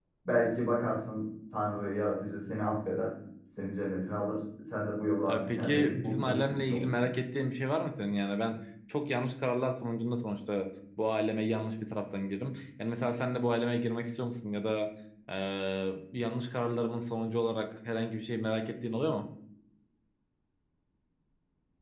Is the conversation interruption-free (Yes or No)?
No